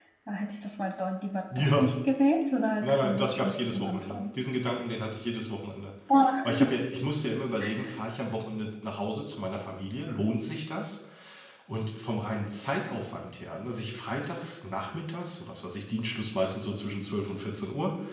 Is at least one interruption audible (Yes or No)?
Yes